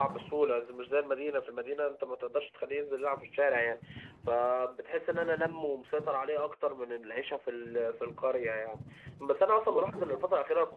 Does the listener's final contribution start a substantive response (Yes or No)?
No